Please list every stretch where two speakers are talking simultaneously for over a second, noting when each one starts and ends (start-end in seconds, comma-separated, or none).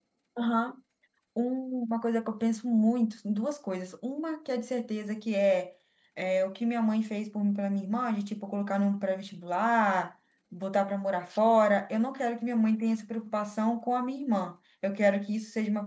none